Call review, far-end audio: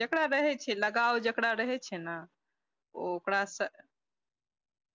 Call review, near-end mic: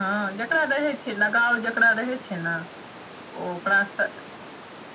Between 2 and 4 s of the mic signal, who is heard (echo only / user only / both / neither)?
echo only